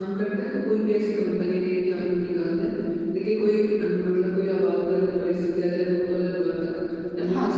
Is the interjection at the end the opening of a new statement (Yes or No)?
No